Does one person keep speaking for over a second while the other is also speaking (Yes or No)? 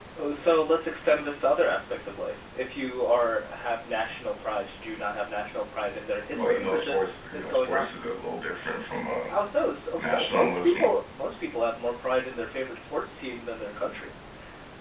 Yes